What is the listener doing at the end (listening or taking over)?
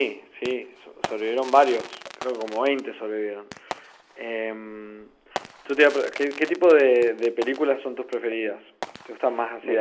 listening